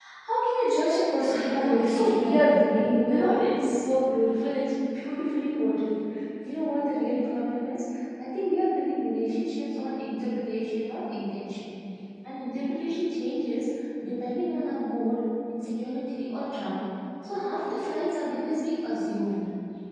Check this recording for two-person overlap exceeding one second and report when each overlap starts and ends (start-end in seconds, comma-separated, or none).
1.3-2.5